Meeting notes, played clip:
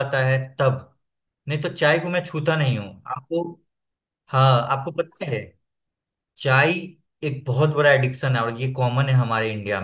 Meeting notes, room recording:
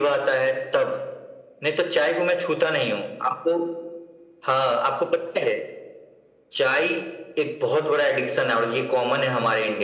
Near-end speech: none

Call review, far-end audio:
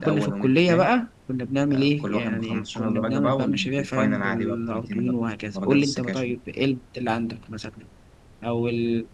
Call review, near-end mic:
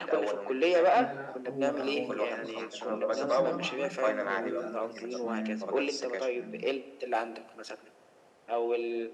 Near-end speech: present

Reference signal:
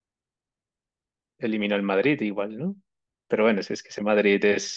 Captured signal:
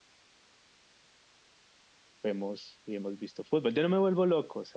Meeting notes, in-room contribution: present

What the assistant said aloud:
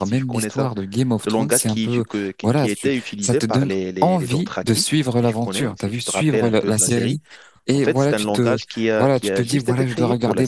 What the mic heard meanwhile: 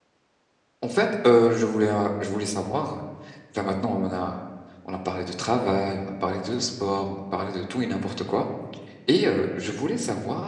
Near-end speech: present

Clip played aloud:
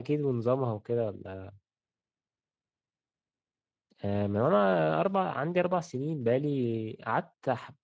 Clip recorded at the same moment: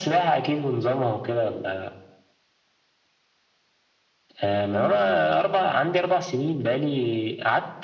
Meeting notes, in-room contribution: none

